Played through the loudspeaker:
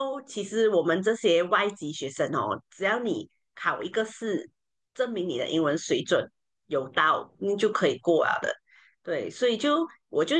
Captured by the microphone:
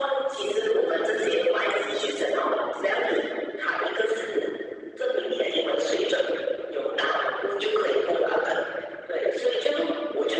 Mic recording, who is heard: echo only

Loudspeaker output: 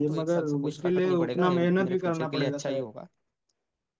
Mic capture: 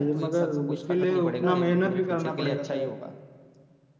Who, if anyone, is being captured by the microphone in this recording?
echo only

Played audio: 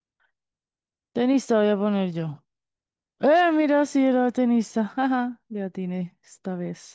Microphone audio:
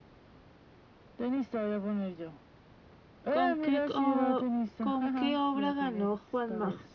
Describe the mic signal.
both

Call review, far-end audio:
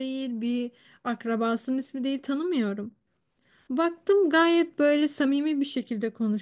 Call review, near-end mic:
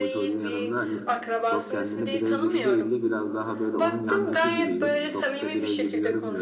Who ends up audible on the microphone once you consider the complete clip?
both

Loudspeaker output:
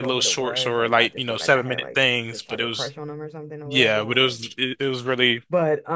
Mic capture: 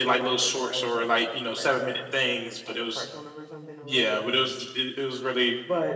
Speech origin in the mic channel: echo only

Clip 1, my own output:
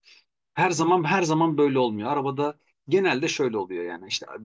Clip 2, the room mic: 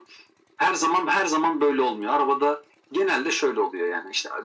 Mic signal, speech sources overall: echo only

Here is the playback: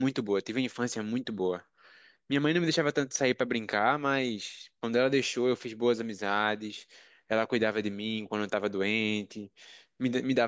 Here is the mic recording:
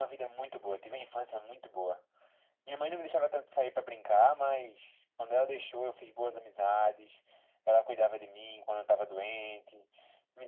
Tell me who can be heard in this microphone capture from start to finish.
echo only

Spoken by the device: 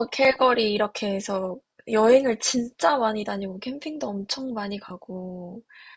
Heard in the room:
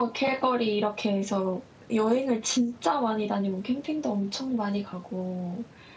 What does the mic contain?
echo only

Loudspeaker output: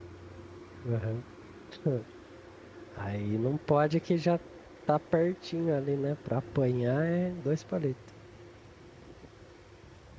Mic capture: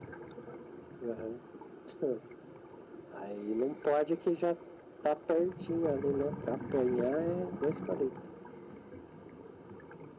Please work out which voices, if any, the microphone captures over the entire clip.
echo only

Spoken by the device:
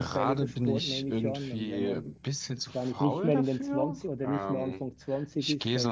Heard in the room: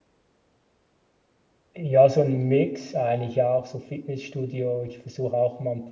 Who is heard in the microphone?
user only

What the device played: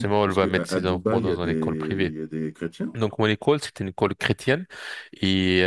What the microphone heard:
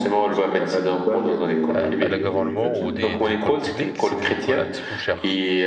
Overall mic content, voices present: both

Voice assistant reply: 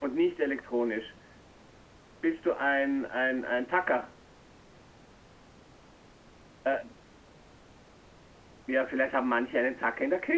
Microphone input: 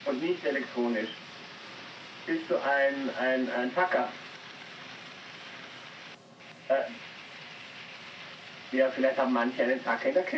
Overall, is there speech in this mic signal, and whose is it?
echo only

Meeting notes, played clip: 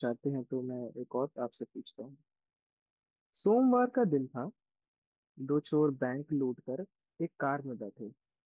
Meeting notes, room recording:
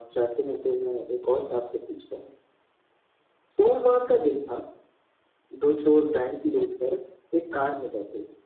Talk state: echo only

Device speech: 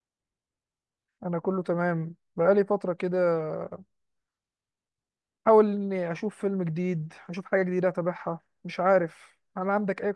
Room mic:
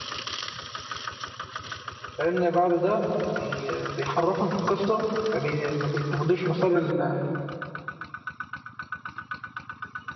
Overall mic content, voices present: user only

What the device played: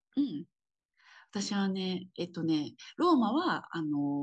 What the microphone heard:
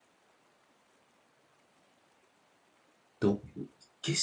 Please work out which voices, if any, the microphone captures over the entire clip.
user only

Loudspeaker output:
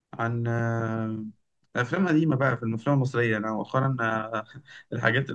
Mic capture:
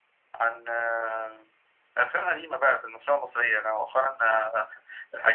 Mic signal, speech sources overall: echo only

